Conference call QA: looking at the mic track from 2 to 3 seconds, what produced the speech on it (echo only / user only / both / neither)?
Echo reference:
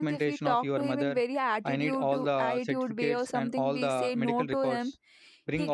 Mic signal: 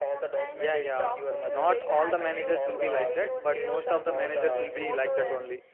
both